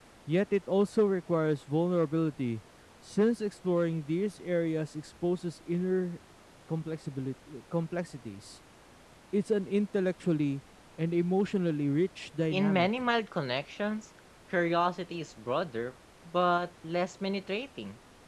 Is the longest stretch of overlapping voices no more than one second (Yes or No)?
Yes